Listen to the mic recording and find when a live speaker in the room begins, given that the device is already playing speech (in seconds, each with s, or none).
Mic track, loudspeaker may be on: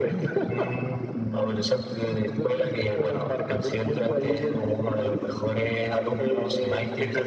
none